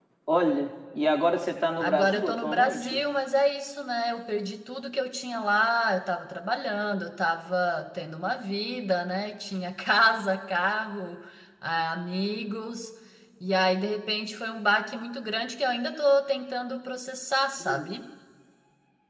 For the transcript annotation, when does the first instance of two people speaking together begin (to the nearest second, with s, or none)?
2 s